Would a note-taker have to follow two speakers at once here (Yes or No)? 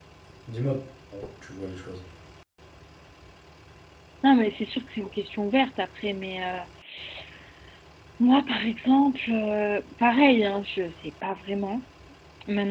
No